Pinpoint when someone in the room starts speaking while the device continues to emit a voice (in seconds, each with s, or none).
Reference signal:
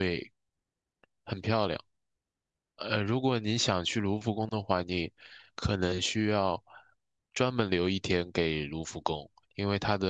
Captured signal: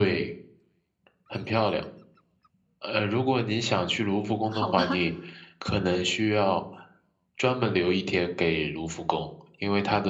4.5 s